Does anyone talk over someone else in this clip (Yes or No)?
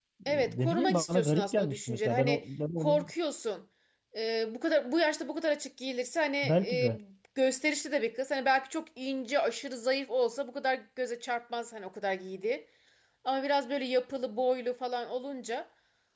Yes